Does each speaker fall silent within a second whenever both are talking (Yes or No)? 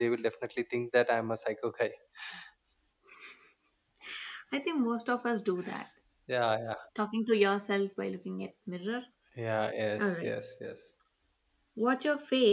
Yes